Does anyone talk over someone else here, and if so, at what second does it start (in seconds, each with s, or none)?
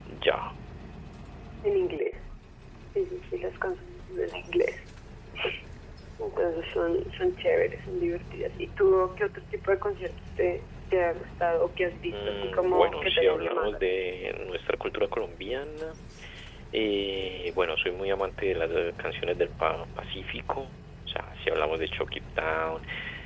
12.1 s